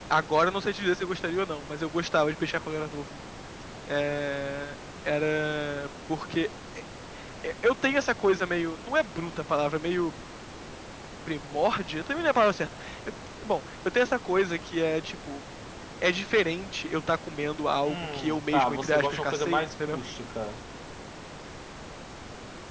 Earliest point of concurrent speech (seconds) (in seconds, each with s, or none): 17.8 s